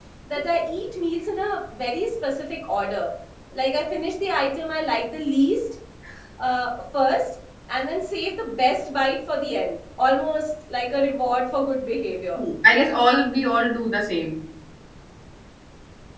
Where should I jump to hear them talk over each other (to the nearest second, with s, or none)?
none